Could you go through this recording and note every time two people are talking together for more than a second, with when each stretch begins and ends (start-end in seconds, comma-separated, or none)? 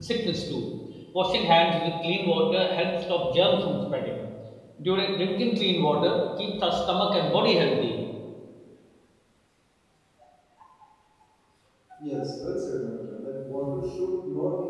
none